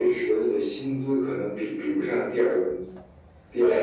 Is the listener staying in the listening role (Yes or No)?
No